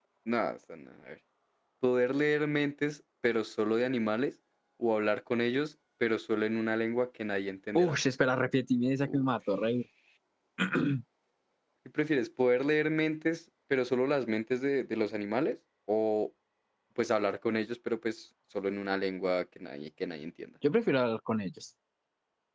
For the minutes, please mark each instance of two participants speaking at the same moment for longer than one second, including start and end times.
none

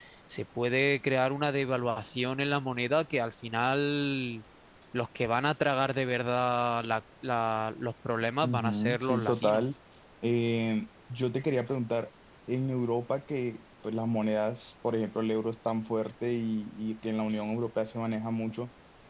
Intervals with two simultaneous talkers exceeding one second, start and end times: 8.4-9.6

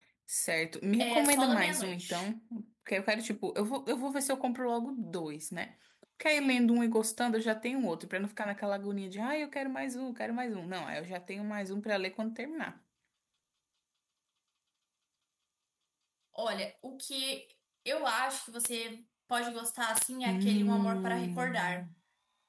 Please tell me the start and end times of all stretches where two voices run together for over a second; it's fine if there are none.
1.0-2.3, 20.2-21.9

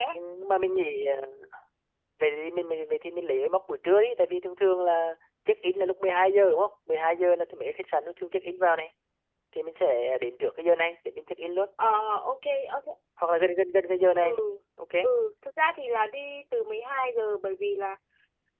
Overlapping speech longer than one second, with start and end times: none

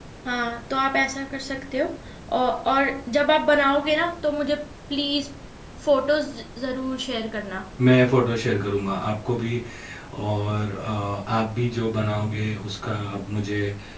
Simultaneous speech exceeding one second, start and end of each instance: none

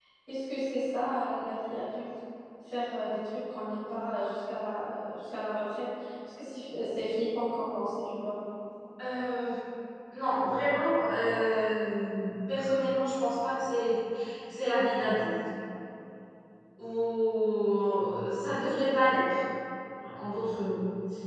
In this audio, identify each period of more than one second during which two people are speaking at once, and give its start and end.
none

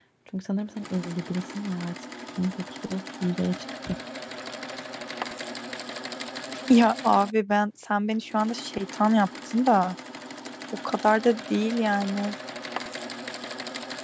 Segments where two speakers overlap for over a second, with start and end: none

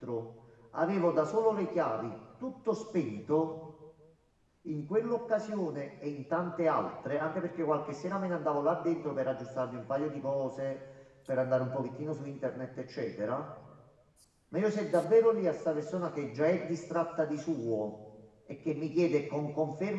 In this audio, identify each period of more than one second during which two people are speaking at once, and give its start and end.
none

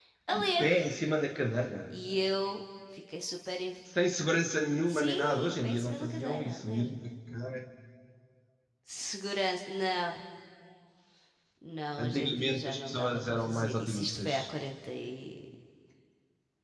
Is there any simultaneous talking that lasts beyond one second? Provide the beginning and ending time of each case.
4.9-6.9, 12.0-14.5

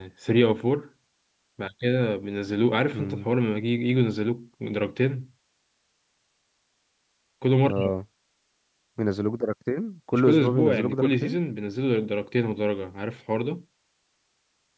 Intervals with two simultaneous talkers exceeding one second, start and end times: 10.1-11.4

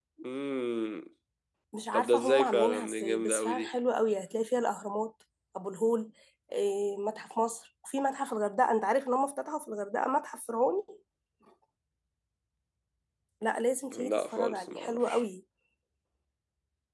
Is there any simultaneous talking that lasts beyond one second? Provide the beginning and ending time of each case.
1.9-3.7, 13.9-15.2

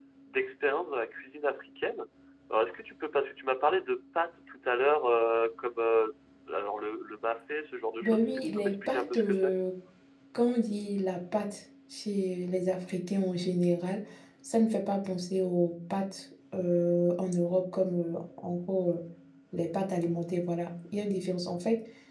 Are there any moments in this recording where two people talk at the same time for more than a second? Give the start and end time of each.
8.0-9.5

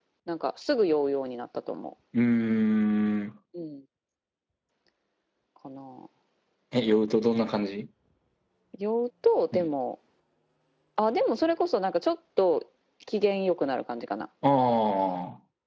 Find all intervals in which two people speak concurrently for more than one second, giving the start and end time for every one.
none

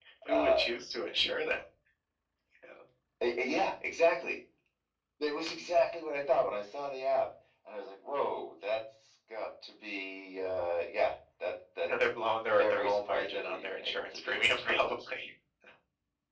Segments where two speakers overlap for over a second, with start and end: 12.6-14.5

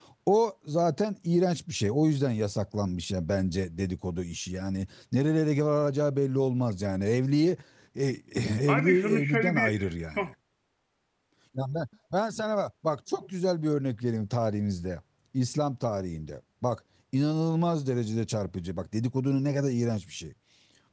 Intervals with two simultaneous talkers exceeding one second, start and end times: 8.7-10.2

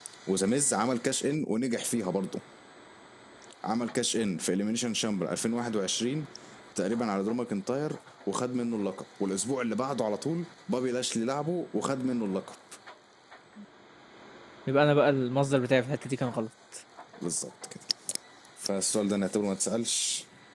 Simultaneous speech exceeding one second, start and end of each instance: none

